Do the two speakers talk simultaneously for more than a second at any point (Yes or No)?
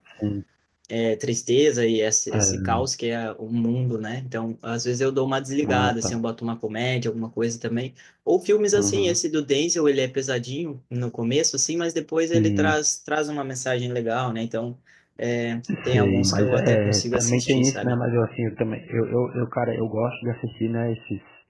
Yes